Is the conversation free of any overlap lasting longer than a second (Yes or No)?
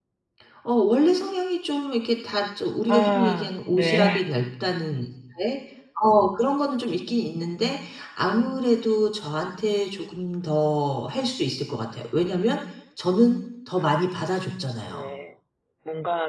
No